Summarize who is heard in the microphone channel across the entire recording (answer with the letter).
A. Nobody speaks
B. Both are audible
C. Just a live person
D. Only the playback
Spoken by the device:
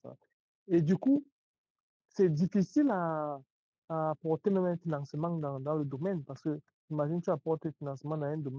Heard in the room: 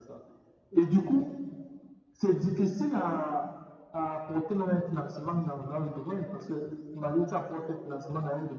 D